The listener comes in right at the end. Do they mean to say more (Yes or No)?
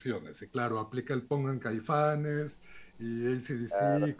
No